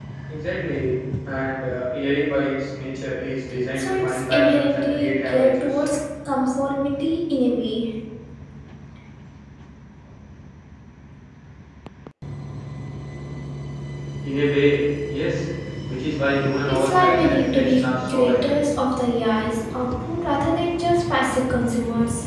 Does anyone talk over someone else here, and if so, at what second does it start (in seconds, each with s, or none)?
3.8 s